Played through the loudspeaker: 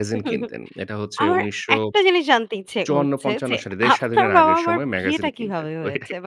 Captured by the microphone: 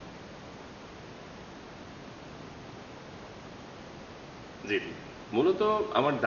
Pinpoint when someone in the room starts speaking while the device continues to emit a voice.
4.7 s

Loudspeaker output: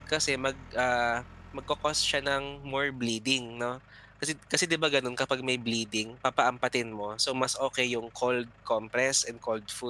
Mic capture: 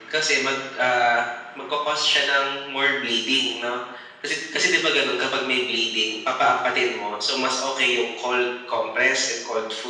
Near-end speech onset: none

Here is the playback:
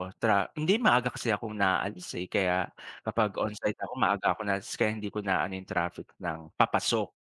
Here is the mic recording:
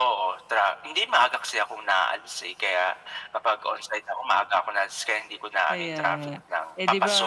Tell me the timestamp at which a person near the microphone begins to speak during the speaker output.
5.7 s

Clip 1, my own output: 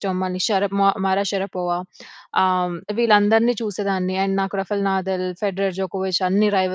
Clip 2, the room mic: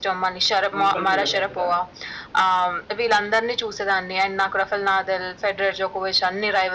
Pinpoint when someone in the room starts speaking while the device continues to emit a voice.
0.7 s

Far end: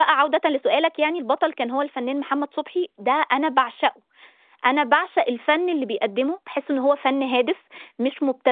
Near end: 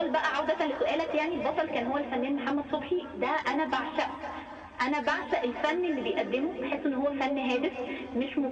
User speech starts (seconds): none

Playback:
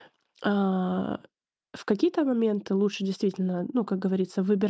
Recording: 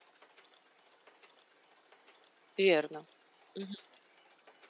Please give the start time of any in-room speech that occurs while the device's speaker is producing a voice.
2.6 s

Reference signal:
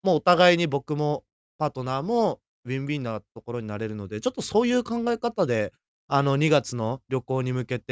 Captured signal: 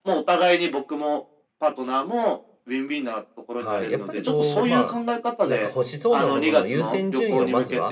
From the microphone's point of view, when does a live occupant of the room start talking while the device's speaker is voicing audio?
3.5 s

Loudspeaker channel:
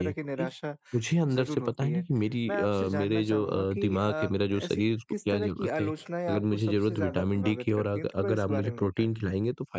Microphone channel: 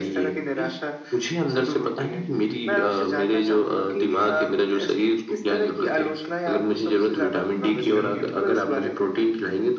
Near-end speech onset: 7.7 s

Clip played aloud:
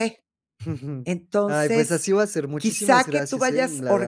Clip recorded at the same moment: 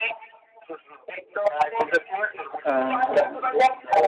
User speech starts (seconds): 2.6 s

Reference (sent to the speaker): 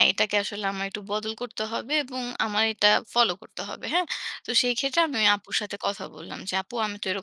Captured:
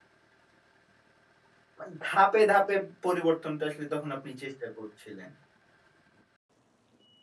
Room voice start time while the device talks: 1.8 s

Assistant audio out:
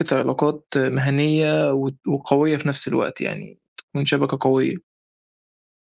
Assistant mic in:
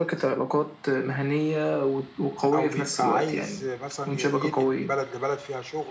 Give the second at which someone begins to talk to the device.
2.5 s

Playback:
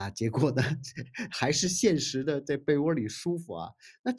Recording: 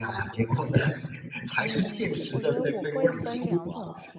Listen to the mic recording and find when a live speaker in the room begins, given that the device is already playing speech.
1.6 s

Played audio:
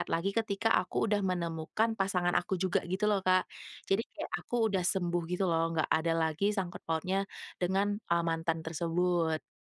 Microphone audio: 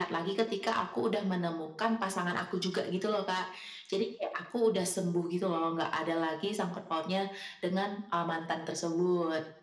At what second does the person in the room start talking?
none

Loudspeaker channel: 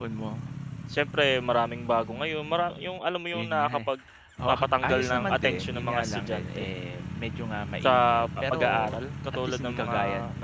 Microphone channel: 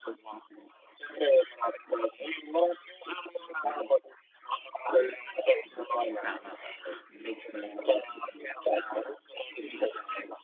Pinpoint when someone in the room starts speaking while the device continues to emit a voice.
6.2 s

